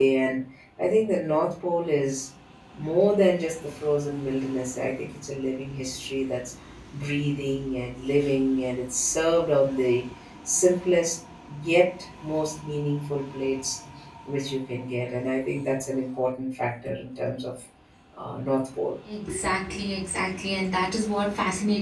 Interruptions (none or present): none